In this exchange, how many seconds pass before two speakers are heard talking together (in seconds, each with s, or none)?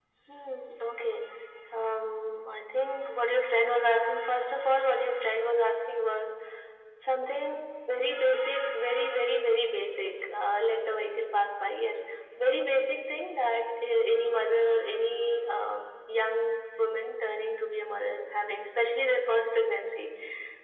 none